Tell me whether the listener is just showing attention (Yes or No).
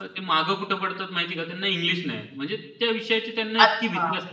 No